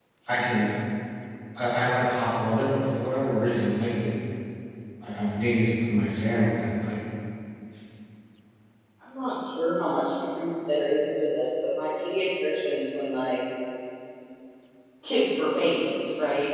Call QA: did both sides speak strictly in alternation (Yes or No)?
Yes